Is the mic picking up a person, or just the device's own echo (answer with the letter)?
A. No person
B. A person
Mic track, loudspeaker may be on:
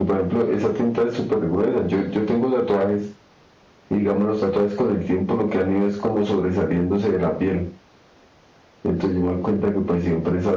A